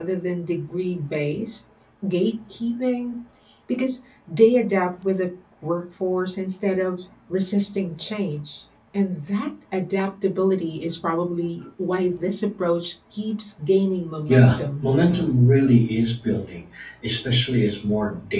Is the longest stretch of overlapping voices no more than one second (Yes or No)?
Yes